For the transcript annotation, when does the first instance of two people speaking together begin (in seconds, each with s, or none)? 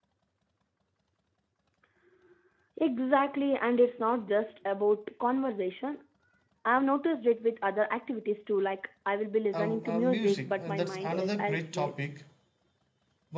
9.5 s